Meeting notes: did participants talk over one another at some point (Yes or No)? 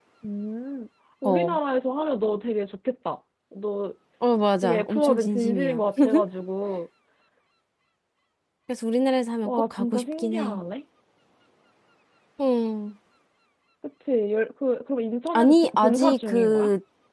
Yes